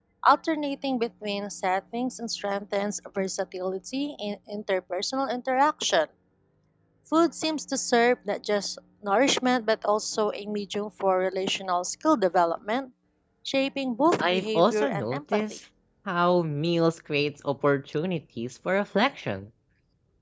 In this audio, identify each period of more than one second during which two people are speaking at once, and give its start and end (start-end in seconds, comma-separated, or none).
14.2-15.4